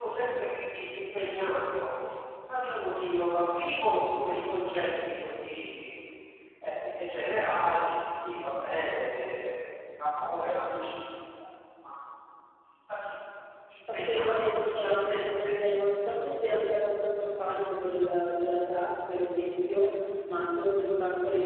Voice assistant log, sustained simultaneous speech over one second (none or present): present